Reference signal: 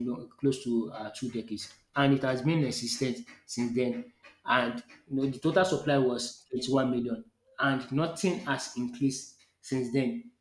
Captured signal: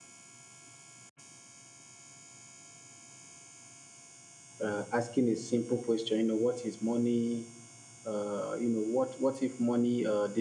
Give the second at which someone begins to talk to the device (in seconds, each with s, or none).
4.6 s